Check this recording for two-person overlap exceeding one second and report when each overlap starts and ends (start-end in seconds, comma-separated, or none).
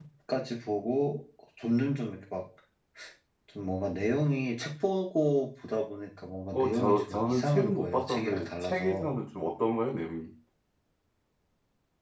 6.5-9.1